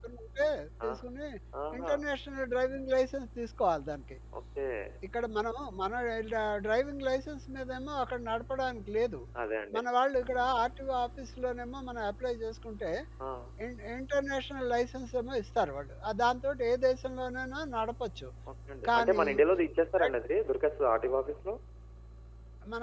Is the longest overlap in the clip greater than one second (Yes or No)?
No